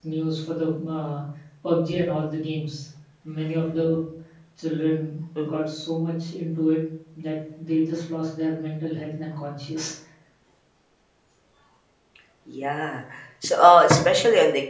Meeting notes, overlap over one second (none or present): none